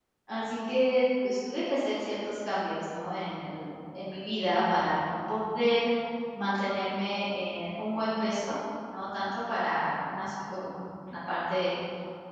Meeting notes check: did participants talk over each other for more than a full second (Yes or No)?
No